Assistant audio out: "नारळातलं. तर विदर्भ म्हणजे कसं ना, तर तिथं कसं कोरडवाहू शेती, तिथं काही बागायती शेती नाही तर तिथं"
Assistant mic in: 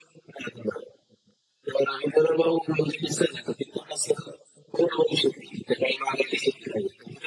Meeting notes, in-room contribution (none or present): none